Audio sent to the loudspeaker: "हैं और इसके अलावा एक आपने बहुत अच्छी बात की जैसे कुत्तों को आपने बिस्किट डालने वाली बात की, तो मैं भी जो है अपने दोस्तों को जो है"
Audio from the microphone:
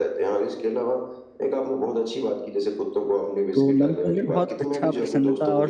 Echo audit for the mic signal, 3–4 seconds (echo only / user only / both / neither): both